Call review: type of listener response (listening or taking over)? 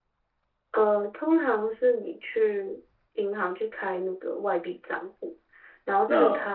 listening